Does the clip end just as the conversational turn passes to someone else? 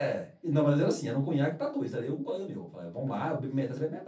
No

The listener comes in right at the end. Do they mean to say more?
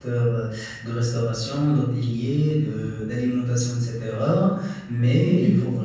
No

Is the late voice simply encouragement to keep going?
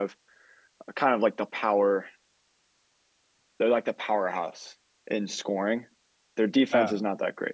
Yes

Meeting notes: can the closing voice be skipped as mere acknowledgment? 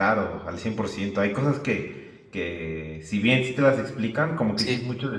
Yes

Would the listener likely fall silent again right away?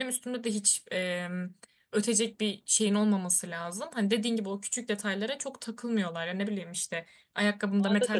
Yes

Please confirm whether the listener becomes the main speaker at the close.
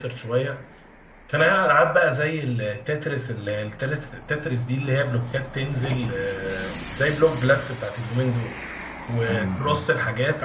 No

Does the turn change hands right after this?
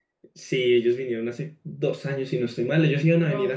No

